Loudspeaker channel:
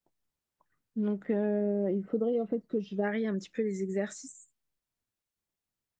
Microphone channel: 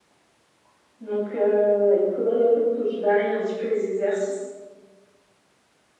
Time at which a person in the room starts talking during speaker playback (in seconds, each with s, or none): none